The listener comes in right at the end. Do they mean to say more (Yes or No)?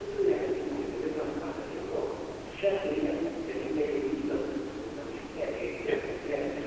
Yes